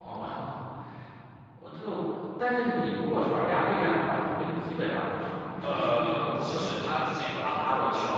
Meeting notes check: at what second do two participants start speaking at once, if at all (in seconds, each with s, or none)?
5.6 s